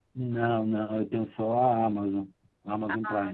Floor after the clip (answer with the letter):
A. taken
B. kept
A